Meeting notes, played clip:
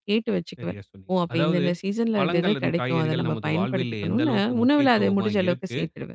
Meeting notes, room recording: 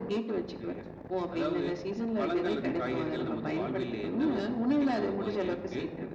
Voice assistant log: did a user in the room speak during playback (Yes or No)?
No